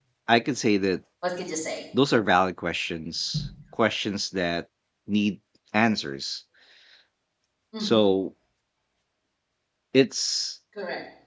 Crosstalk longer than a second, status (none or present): none